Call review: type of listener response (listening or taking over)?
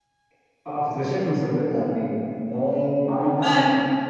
listening